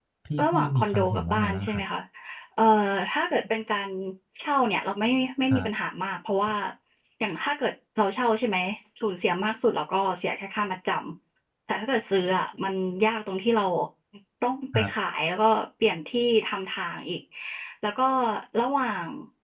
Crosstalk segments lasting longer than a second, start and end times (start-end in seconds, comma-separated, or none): 0.5-1.8